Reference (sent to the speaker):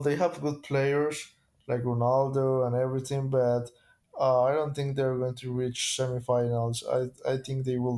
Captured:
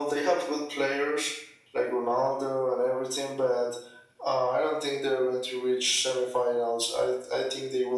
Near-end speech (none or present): none